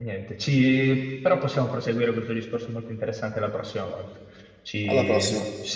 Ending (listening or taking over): listening